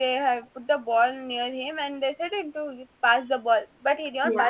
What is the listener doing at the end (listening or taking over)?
listening